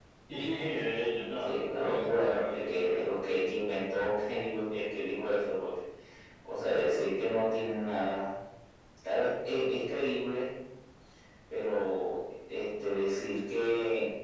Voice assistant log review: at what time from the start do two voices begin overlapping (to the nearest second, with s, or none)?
1 s